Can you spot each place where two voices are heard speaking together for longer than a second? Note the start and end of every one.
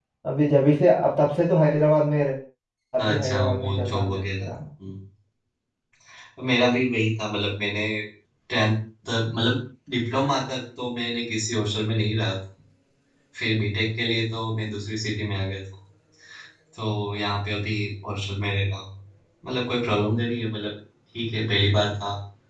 3.0-4.5

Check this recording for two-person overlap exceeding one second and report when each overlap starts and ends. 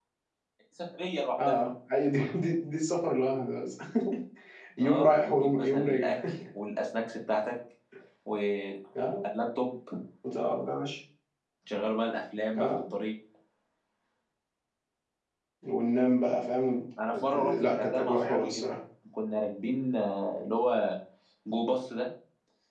4.8-6.1, 17.2-18.6

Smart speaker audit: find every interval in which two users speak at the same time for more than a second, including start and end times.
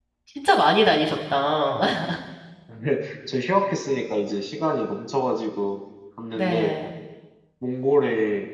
none

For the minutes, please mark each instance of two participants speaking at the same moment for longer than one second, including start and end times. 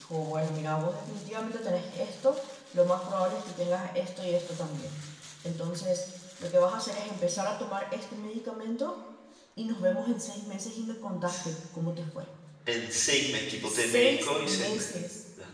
13.7-14.9

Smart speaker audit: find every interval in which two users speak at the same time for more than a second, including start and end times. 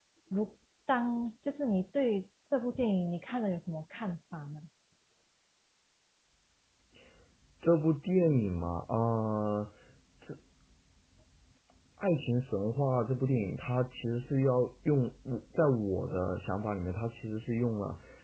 none

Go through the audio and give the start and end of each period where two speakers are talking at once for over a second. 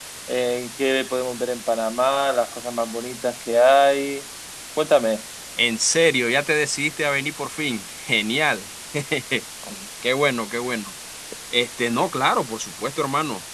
none

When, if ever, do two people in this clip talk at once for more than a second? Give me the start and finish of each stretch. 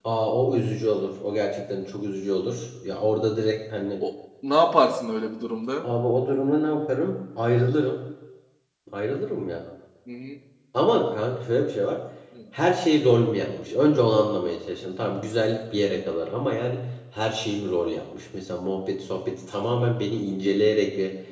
none

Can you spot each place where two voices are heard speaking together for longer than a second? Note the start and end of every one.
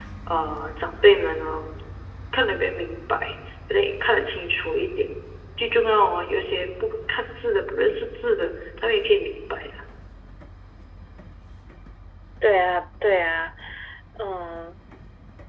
none

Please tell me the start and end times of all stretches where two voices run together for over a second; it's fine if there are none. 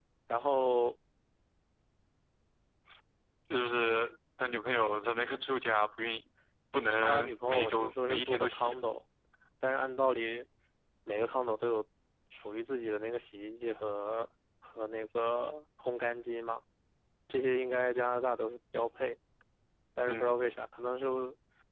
7.0-8.8

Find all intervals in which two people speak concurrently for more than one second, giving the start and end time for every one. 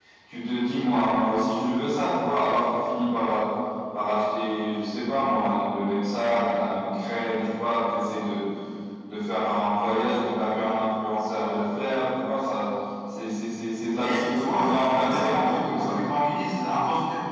14.0-16.0

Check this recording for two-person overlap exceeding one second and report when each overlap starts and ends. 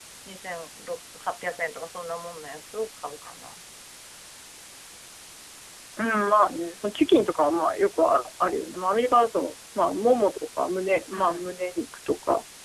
none

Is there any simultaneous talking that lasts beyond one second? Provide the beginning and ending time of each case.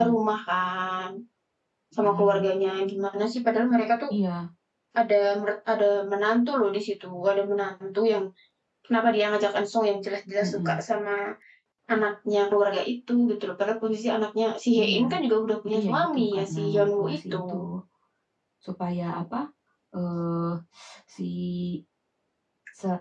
15.6-17.4

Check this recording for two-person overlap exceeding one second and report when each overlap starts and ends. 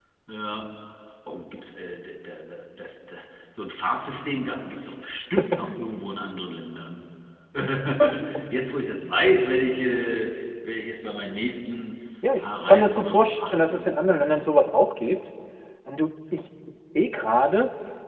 12.4-13.9

